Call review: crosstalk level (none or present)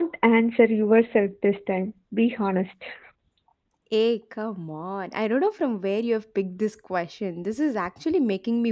none